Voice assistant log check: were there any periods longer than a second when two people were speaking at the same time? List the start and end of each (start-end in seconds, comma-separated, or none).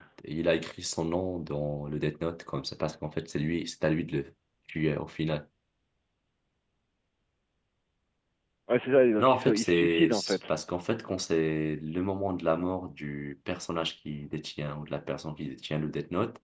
9.2-10.5